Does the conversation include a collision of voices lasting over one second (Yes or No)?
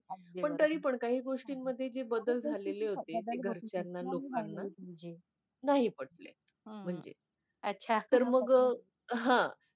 Yes